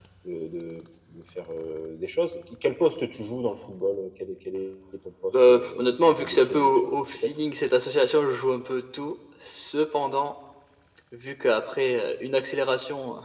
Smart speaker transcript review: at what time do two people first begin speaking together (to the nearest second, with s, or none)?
5 s